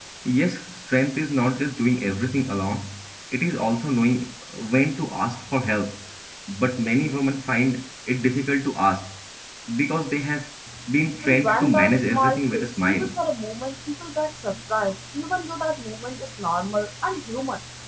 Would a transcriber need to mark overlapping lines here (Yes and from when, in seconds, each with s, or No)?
Yes, from 11.2 s